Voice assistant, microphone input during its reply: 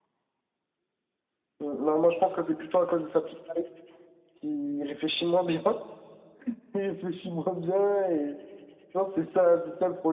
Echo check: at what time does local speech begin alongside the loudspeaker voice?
none

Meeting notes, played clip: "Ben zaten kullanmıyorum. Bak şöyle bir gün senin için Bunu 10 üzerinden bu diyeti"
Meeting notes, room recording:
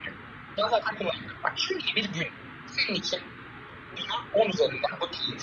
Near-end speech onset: none

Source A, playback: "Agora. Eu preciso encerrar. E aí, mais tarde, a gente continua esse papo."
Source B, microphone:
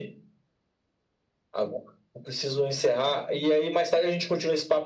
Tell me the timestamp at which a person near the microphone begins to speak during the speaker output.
none

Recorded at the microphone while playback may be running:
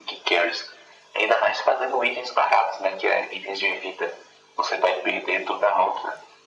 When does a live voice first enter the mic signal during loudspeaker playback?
none

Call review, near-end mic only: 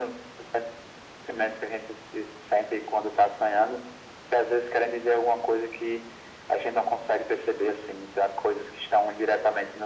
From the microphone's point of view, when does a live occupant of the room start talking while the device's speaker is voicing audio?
none

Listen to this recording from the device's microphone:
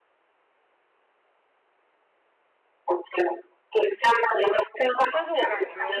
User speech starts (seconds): 5.1 s

